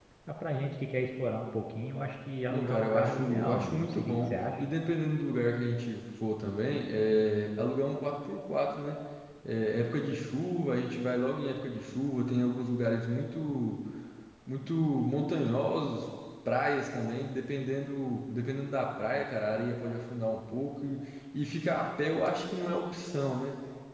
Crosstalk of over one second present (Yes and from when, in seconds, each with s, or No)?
Yes, from 2.5 s